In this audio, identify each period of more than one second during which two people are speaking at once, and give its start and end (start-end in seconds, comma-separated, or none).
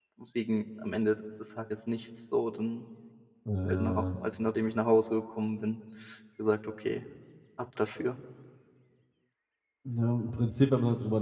none